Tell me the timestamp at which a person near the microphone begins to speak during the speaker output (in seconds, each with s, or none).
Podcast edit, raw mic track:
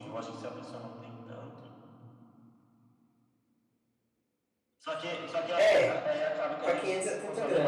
5.6 s